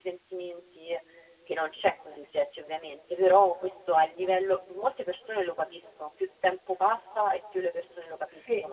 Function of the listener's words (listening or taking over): taking over